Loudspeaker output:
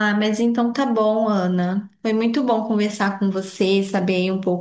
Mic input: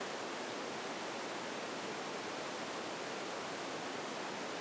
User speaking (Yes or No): No